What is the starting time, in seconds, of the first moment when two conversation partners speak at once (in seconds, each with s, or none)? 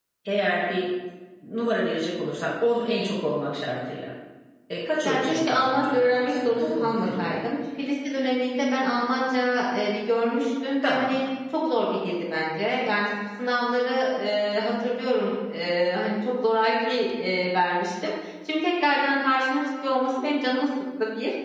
5.0 s